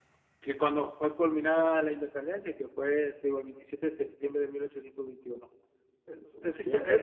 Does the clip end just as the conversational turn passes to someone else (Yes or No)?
No